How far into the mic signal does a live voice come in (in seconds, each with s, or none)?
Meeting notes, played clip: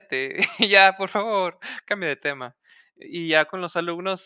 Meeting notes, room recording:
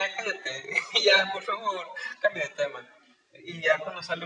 none